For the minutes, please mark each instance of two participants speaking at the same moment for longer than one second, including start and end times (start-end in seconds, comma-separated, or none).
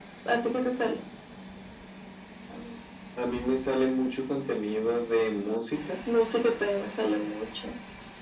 none